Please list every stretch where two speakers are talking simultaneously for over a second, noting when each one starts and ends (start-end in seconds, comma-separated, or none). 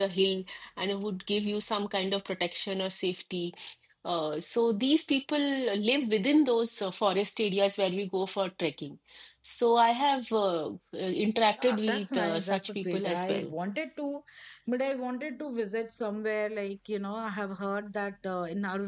11.6-13.5